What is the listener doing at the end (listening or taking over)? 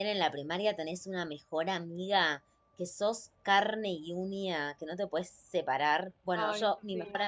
listening